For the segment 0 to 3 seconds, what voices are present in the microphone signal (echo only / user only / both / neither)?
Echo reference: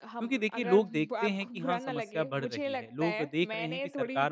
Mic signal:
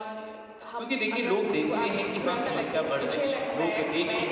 echo only